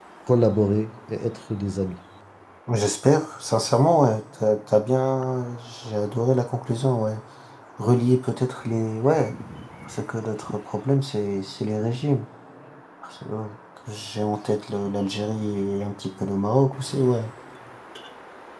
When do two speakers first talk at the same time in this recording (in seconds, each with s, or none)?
none